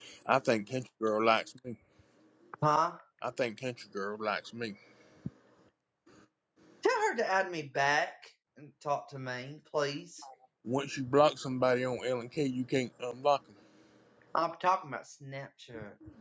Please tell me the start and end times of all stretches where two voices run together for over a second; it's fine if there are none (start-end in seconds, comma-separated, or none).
none